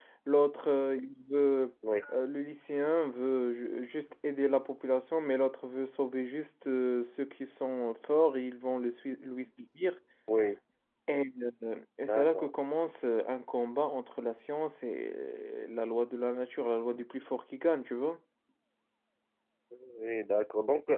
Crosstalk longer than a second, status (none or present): none